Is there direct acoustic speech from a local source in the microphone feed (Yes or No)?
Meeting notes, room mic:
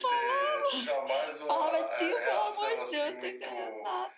Yes